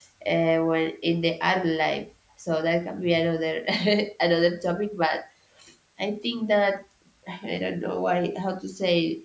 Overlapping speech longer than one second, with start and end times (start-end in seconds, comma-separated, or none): none